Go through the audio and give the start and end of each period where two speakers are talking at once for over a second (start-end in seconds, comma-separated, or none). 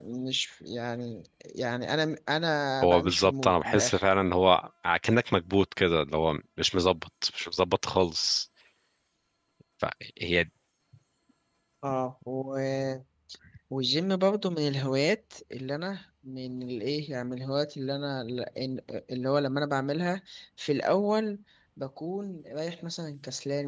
2.8-4.0